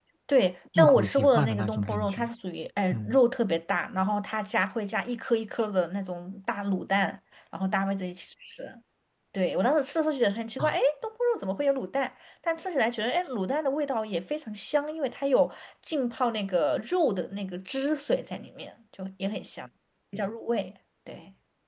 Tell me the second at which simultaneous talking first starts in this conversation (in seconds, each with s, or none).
0.8 s